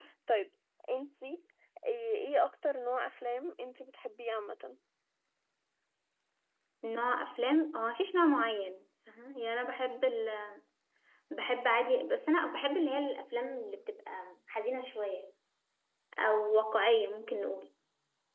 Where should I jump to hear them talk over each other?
none

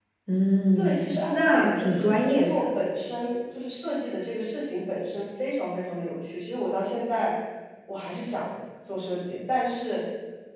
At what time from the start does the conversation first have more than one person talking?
0.8 s

